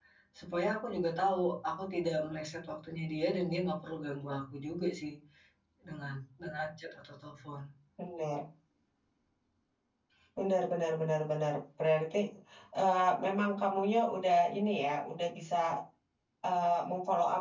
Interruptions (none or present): none